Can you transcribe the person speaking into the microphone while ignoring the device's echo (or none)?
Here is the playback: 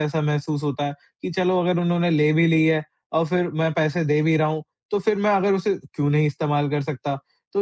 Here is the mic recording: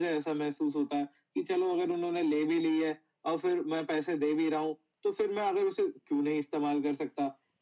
none